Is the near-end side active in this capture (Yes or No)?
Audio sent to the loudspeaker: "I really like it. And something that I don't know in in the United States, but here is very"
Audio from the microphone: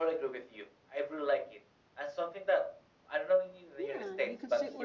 Yes